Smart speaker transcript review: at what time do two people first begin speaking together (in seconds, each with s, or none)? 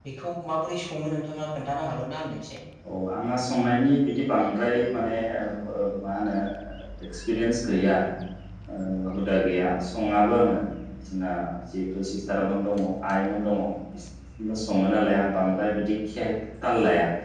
none